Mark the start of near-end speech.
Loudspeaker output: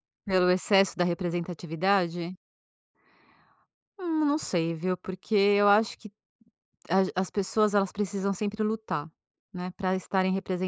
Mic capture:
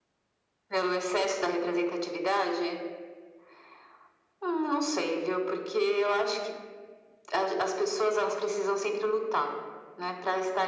none

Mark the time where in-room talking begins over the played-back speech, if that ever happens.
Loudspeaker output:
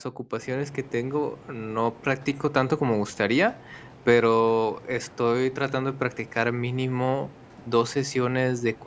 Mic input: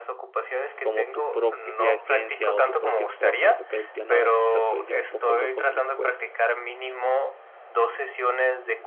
1 s

